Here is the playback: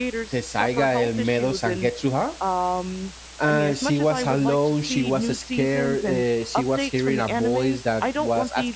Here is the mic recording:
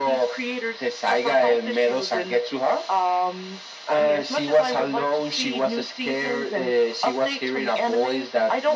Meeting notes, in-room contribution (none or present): none